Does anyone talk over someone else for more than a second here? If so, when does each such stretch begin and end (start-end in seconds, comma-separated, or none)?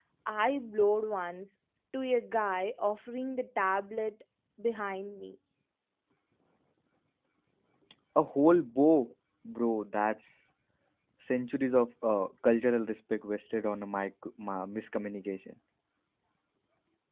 none